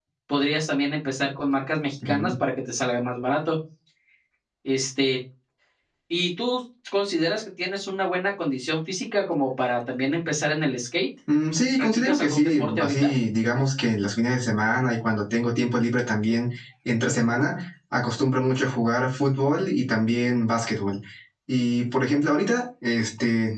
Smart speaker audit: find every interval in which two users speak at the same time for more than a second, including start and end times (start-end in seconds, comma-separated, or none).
11.8-13.1